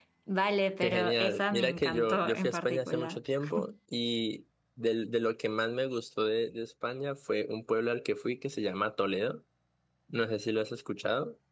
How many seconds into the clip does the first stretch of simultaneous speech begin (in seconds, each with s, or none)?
0.8 s